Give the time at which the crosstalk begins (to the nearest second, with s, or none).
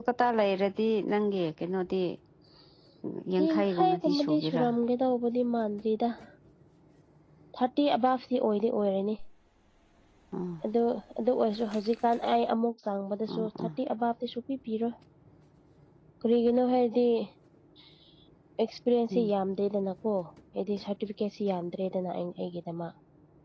3 s